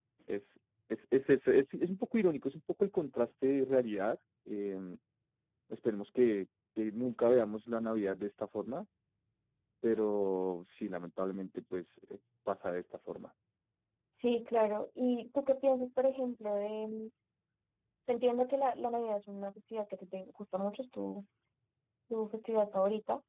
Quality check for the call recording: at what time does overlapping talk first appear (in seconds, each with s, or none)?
none